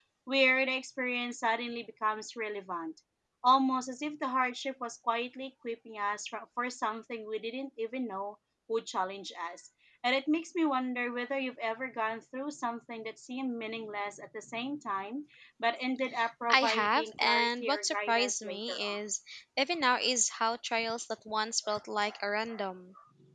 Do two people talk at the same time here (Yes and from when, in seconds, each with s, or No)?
Yes, from 16.5 s